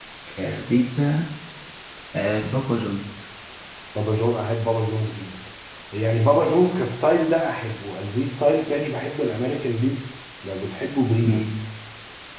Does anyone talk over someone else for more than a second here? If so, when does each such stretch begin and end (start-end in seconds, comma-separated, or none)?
none